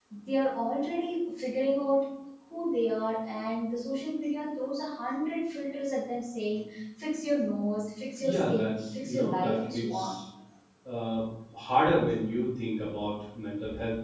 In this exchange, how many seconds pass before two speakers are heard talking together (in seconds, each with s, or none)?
8.2 s